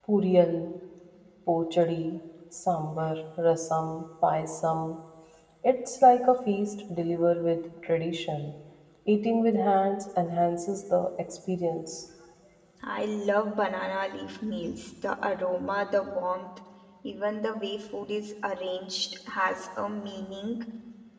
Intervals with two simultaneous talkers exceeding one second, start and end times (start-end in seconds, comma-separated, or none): none